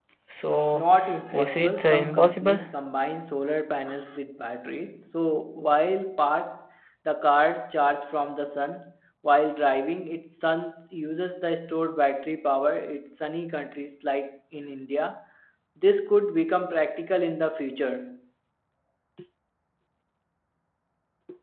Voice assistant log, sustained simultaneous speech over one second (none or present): present